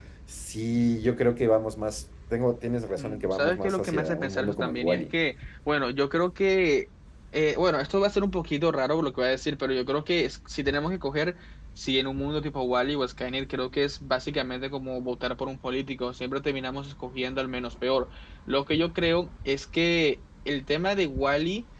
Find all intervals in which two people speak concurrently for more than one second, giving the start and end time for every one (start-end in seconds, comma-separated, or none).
3.0-5.0